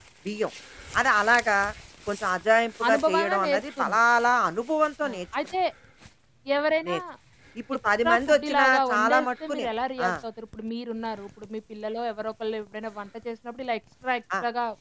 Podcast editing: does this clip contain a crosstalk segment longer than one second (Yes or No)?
Yes